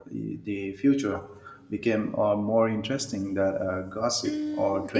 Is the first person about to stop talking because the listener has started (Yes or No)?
Yes